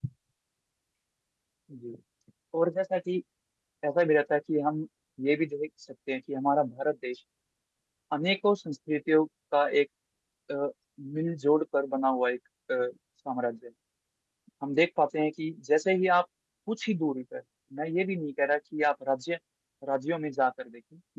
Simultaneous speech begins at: none

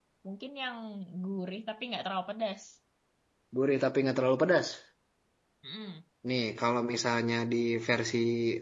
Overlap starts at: none

